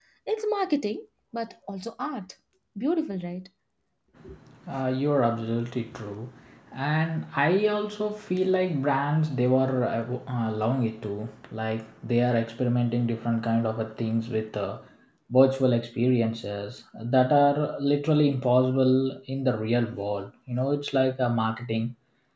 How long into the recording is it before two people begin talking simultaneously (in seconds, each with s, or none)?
none